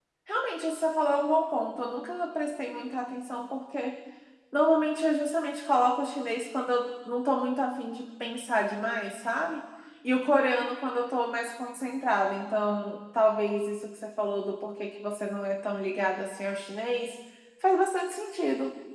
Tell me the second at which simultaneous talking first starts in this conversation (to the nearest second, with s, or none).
none